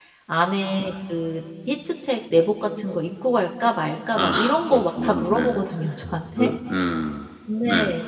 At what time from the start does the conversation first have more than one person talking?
4.1 s

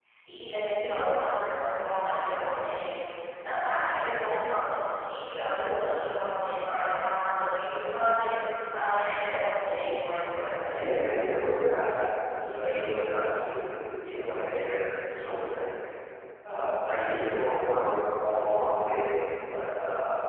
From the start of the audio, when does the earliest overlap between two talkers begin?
none

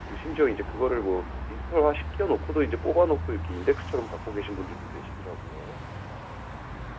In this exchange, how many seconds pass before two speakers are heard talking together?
none

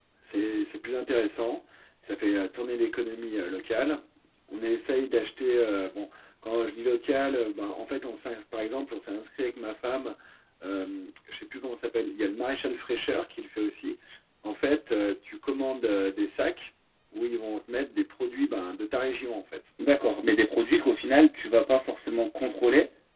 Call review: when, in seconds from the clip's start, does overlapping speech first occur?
none

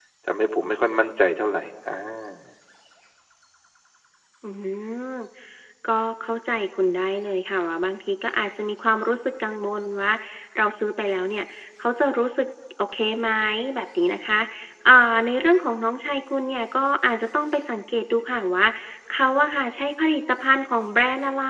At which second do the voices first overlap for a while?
none

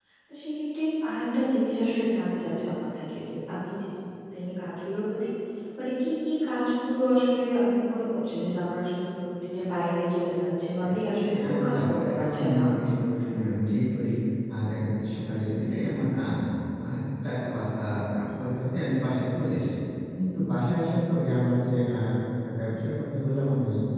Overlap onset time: 10.8 s

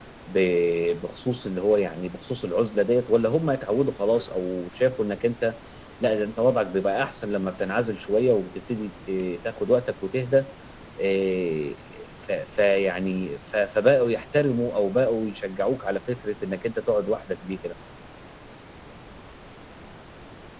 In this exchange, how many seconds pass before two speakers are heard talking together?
none

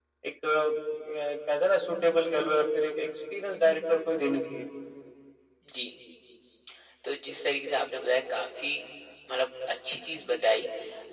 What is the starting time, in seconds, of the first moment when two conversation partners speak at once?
none

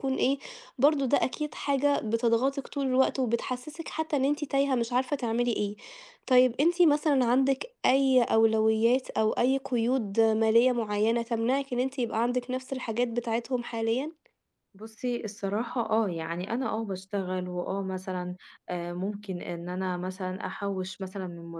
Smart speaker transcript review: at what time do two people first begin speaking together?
none

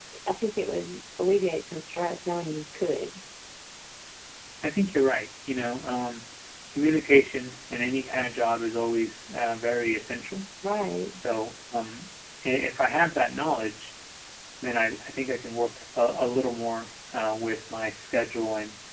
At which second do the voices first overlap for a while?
none

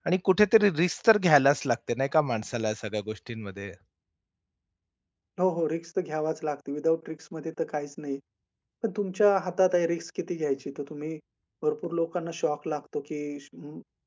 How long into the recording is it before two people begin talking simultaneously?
none

